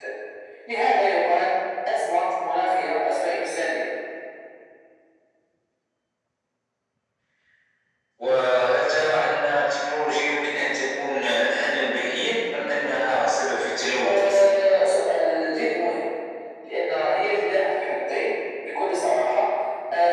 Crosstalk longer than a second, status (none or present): none